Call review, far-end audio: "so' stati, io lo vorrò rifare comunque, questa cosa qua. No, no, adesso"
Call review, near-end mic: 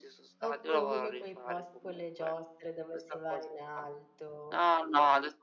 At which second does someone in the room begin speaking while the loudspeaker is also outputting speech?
0.4 s

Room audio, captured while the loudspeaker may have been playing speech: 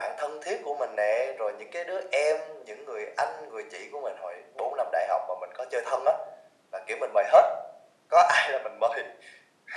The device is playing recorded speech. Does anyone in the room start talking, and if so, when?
none

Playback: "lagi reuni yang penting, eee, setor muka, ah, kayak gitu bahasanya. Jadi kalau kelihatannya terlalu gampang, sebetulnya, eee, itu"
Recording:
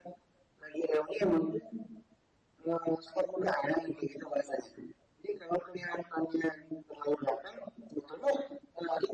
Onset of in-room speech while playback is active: none

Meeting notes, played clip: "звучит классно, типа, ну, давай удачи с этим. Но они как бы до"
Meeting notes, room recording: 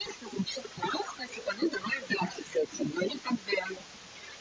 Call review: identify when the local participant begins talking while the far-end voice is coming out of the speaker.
none

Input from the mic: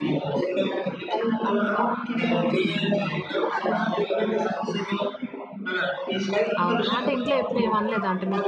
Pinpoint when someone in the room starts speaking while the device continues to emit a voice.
6.6 s

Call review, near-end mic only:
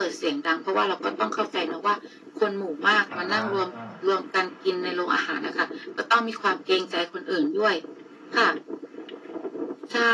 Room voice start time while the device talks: 3.1 s

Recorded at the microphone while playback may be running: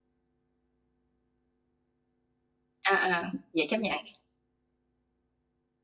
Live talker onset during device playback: 2.8 s

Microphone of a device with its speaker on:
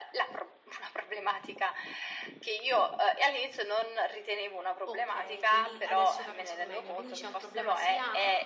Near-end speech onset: 4.9 s

